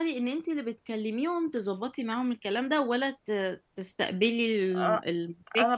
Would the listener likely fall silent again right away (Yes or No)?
No